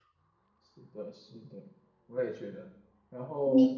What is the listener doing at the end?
listening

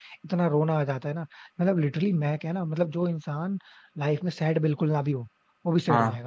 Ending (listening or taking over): taking over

